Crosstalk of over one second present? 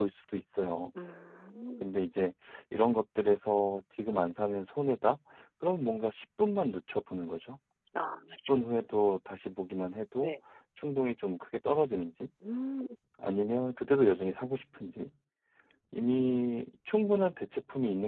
No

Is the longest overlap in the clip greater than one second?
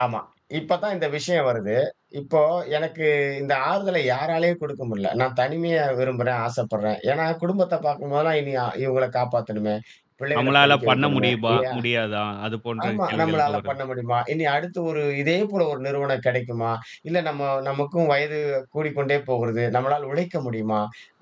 Yes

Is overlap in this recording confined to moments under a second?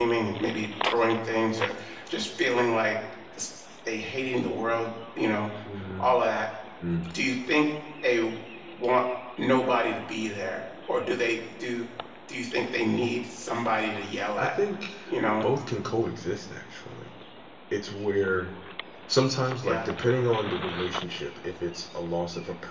Yes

